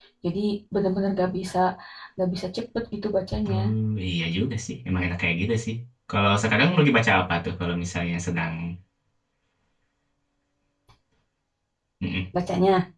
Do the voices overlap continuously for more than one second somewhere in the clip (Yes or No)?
No